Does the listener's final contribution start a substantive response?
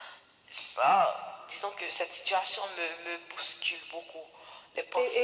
Yes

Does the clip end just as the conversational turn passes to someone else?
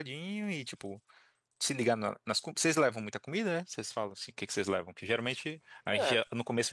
No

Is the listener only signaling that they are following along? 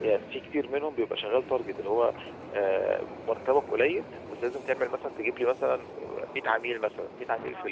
Yes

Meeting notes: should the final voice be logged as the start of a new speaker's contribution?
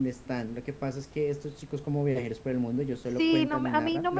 Yes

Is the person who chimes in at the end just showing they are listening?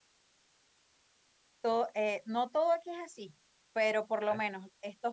Yes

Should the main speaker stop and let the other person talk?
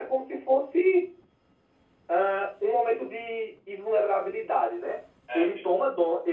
No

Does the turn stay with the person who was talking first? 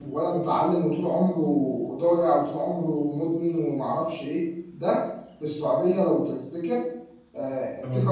Yes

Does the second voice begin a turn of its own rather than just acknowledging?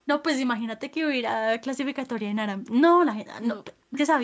No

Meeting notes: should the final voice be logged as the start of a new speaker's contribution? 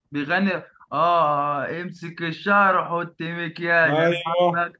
Yes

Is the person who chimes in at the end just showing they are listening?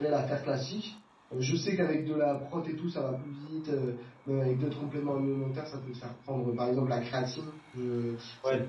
Yes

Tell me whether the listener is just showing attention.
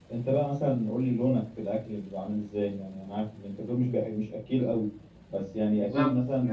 Yes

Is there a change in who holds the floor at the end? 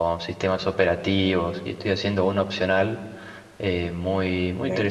No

